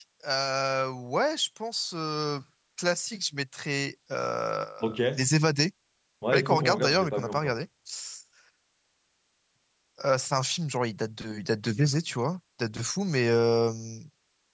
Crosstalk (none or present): present